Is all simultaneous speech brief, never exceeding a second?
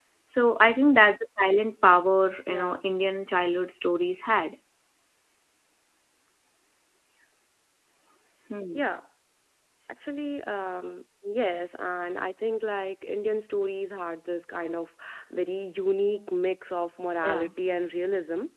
Yes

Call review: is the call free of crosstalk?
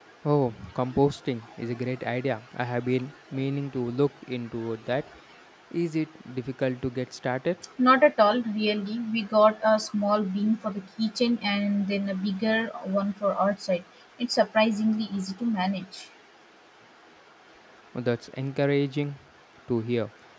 Yes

